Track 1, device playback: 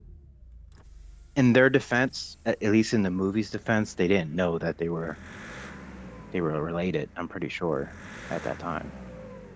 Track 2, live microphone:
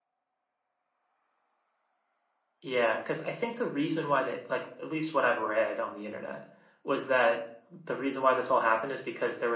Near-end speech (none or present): present